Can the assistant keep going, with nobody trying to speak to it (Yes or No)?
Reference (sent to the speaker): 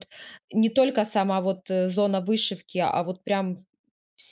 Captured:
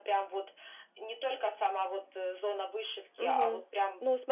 No